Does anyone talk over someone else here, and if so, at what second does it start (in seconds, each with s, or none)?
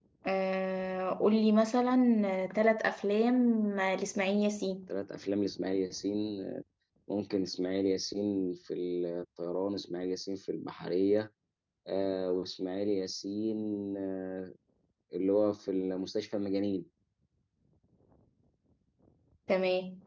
none